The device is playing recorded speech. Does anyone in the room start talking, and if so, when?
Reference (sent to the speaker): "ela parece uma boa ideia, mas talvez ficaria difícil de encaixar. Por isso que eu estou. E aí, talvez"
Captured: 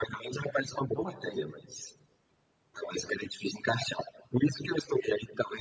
0.5 s

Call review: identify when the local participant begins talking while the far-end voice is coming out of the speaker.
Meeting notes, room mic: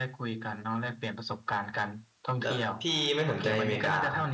2.4 s

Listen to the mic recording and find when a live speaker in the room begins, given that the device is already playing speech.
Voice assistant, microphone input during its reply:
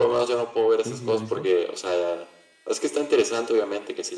0.8 s

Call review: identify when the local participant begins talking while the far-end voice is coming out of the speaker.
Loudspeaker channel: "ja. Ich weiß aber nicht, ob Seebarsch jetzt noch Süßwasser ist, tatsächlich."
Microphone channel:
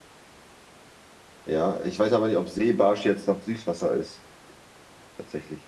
none

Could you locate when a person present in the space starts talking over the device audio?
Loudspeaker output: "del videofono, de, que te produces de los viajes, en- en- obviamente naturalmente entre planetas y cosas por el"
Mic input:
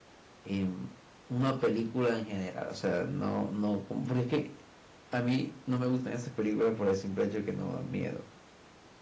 0.4 s

